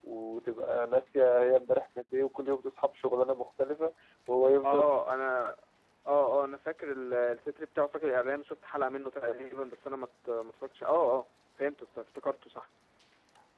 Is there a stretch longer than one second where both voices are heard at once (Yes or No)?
No